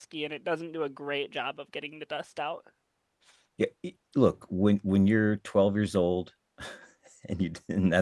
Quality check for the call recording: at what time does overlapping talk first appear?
none

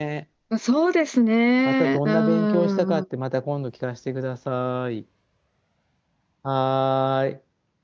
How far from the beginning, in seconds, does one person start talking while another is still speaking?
1.6 s

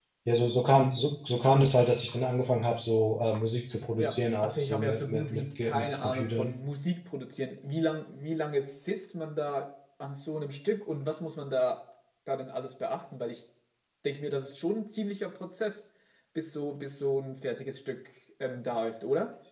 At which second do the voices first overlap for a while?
4.0 s

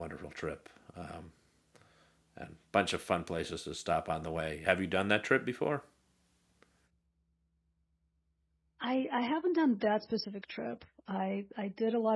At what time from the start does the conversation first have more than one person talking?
none

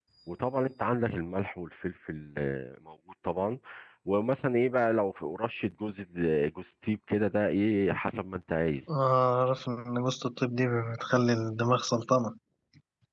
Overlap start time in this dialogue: none

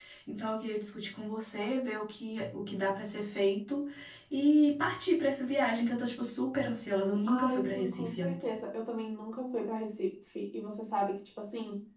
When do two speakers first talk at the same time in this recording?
7.3 s

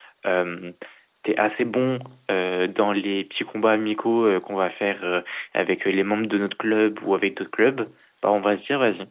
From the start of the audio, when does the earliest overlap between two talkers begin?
none

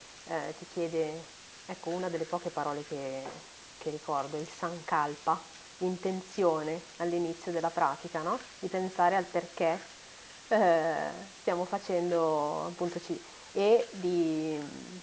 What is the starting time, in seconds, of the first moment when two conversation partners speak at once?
none

